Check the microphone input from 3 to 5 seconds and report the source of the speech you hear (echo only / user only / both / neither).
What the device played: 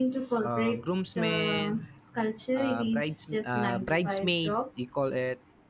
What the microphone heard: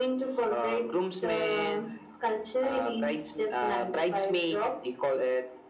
echo only